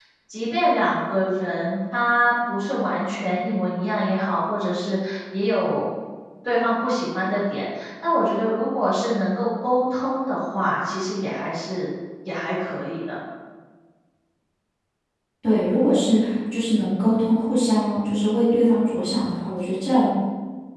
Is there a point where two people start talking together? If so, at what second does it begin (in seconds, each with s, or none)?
none